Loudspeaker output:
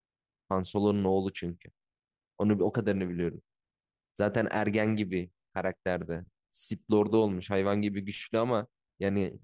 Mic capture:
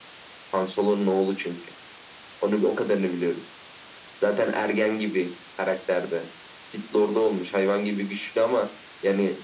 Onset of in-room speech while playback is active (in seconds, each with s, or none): none